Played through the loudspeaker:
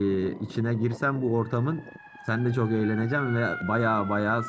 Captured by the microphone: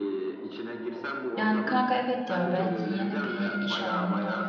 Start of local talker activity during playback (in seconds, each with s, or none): 1.4 s